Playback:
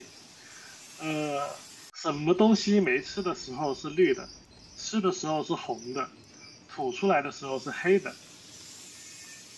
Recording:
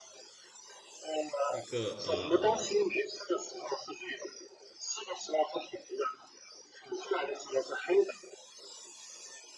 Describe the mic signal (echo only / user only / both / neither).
both